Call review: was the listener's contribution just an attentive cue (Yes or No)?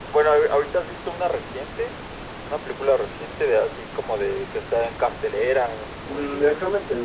No